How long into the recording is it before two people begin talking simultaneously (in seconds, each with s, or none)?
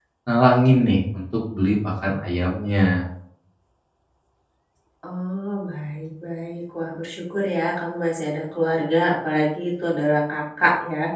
none